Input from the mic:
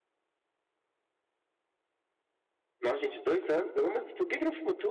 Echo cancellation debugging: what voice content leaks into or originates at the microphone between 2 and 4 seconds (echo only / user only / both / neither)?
user only